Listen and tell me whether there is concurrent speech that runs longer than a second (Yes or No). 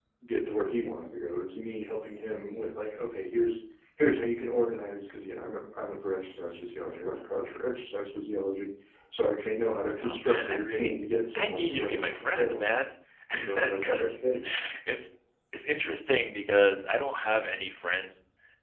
Yes